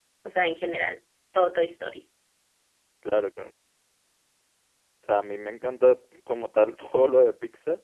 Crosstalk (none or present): none